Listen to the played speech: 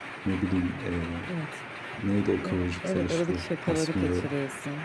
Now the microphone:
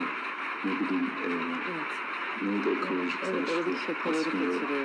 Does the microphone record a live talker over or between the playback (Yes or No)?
No